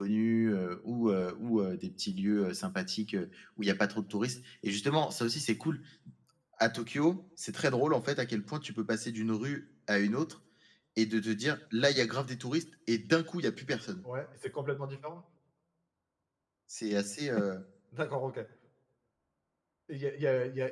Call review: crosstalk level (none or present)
none